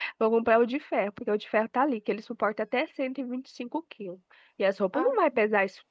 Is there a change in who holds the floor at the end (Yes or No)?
No